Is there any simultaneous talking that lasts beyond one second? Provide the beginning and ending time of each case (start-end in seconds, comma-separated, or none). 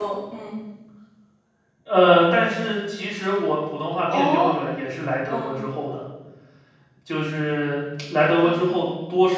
none